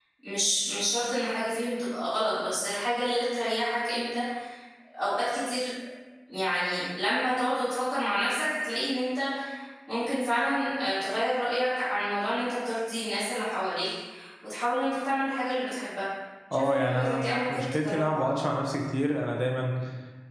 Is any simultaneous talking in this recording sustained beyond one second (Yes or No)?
Yes